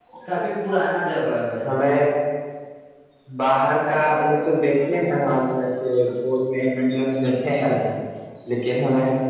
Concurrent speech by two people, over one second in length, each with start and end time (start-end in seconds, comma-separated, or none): none